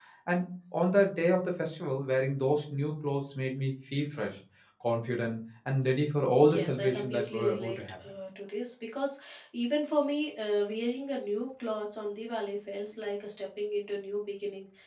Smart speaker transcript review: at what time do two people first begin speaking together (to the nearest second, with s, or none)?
6 s